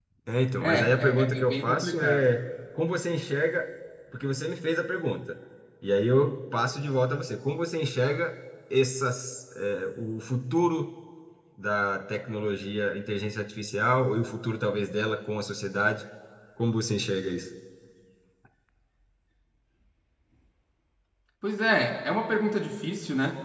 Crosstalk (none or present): present